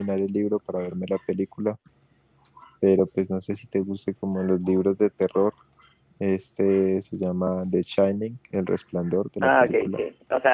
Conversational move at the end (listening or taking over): taking over